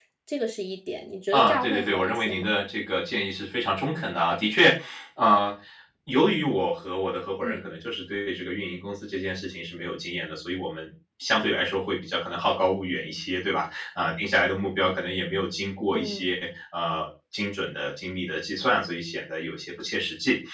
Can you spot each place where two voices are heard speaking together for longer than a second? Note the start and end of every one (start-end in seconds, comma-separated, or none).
1.3-2.6